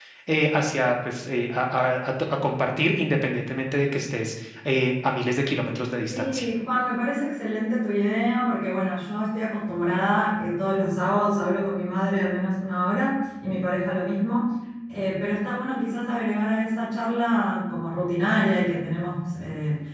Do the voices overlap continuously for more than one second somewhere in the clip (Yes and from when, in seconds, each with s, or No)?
No